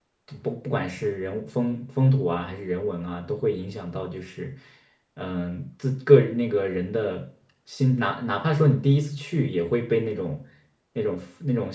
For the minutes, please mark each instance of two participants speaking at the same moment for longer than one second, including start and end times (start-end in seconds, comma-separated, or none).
none